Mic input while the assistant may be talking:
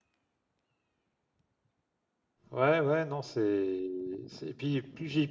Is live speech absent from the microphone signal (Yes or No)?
No